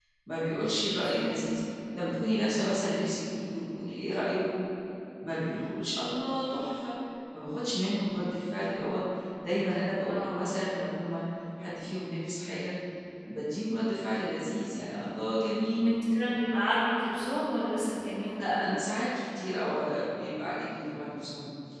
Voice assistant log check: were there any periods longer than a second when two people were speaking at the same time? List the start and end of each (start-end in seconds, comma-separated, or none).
none